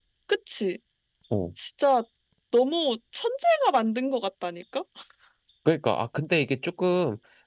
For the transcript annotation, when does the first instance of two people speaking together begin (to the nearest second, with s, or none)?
none